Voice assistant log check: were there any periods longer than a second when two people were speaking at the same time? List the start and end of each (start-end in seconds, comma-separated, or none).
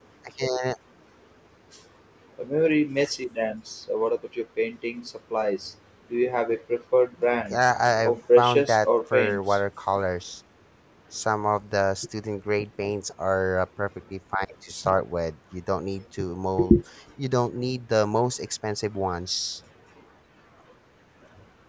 8.1-9.6